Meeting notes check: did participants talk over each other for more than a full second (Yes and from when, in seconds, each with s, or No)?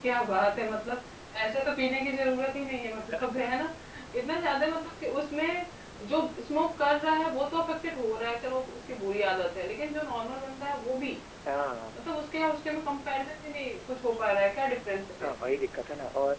No